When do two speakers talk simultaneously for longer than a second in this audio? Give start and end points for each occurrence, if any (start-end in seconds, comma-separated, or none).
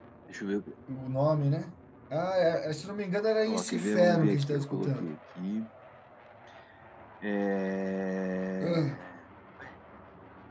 3.5-5.1